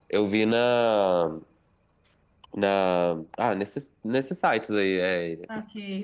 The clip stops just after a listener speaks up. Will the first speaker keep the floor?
No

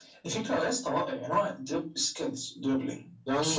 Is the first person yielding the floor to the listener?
Yes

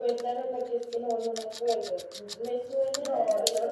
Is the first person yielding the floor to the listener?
Yes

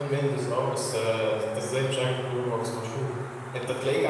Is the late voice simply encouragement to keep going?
Yes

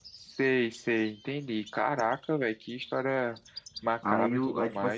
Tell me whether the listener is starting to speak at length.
Yes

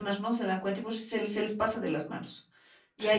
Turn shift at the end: No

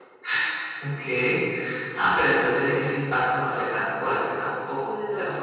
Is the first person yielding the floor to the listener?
No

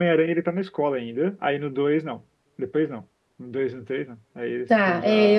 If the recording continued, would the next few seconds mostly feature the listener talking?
Yes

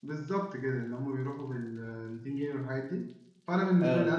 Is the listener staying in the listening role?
Yes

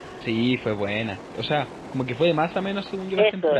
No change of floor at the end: No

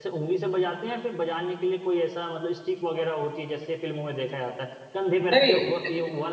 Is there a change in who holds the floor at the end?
No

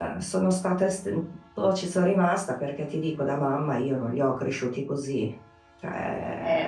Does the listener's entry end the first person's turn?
Yes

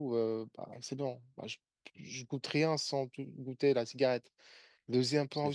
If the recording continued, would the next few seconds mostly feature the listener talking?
No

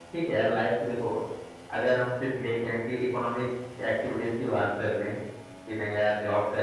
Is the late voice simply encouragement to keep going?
Yes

